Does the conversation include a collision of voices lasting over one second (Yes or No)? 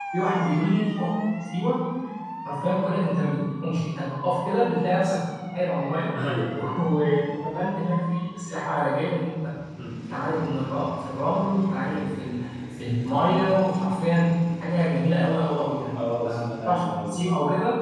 Yes